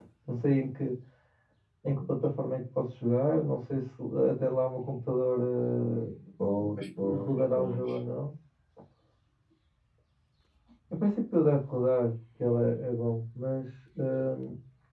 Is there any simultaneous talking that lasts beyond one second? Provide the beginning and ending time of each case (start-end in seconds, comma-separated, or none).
6.6-7.9